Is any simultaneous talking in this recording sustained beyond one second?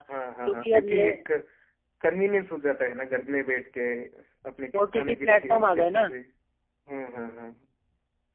Yes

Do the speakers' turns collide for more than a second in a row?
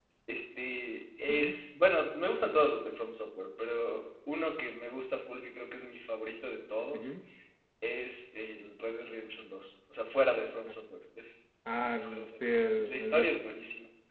Yes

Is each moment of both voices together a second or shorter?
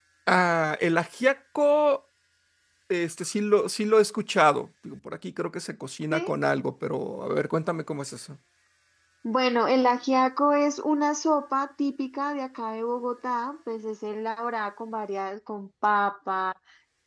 Yes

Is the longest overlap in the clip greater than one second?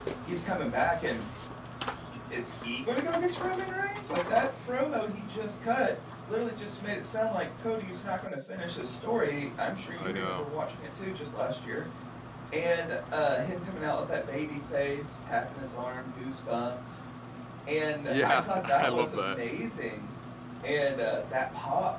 Yes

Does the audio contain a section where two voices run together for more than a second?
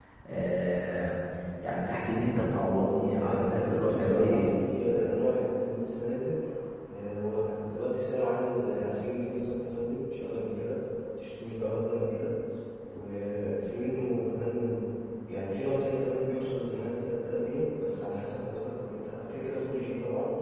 Yes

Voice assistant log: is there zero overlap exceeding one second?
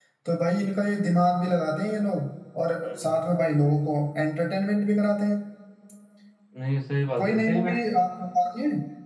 Yes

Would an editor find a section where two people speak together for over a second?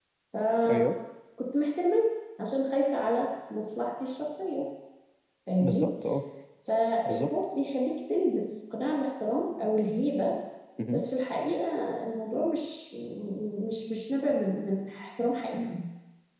No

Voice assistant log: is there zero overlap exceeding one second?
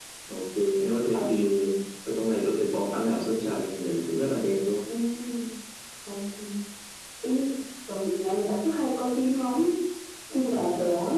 Yes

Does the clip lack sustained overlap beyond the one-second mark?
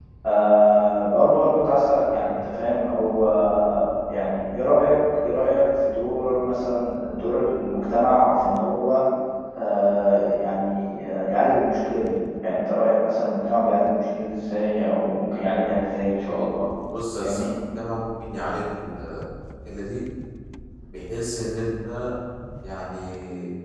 Yes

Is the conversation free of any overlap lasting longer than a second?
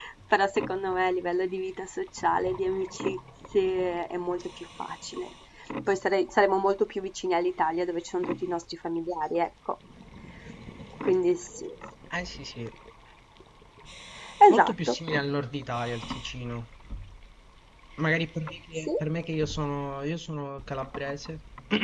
Yes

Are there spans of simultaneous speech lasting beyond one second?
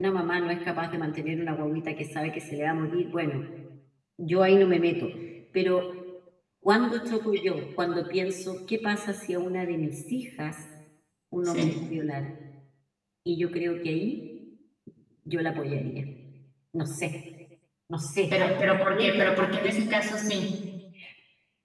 Yes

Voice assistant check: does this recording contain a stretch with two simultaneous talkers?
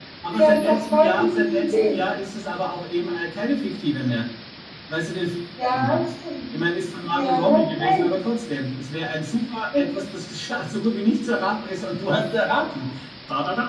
Yes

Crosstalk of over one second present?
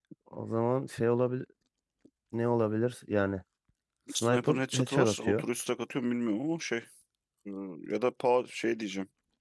Yes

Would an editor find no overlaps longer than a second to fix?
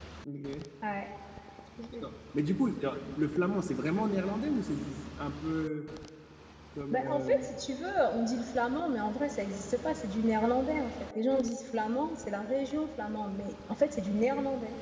Yes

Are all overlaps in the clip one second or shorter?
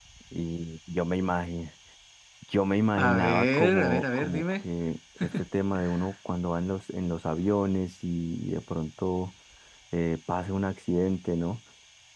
No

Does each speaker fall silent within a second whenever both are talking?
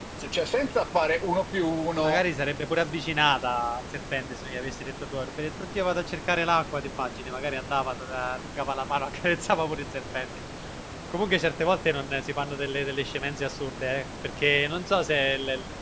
Yes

